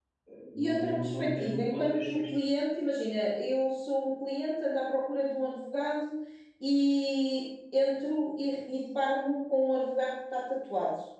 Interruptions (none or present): present